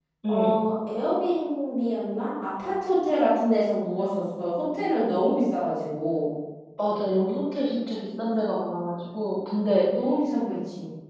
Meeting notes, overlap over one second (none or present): none